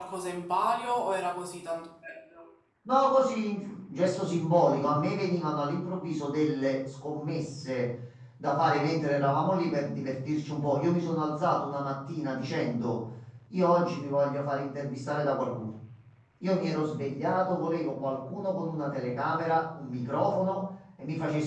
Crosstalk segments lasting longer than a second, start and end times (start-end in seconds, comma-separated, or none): none